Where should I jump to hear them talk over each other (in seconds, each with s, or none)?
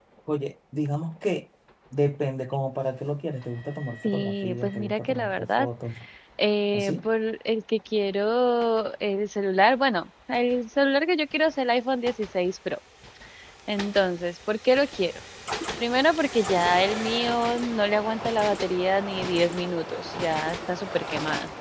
4.0 s